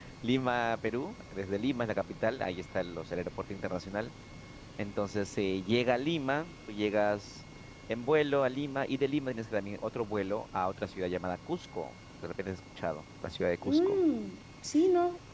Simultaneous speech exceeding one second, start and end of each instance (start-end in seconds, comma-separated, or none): none